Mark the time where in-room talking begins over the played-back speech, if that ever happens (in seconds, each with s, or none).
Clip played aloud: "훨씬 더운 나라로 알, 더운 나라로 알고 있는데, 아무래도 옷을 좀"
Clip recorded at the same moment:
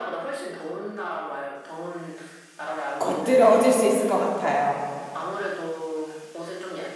3.0 s